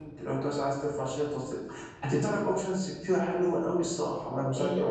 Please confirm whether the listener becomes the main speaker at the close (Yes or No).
Yes